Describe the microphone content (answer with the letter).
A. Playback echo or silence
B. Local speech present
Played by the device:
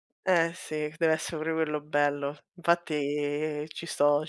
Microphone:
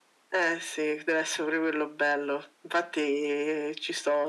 A